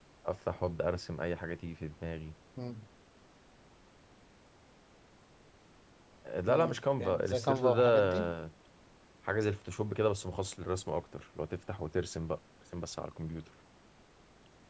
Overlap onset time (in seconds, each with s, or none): 6.5 s